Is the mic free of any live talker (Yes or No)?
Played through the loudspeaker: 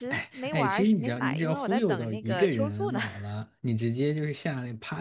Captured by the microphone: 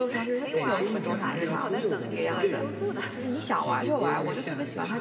No